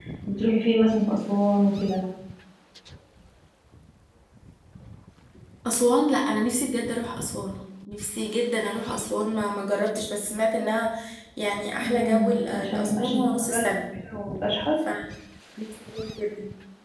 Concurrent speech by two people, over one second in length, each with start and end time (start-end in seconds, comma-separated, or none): 11.8-13.6